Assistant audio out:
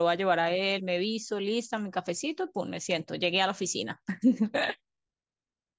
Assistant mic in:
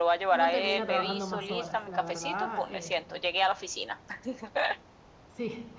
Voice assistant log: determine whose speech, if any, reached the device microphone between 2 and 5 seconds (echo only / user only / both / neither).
both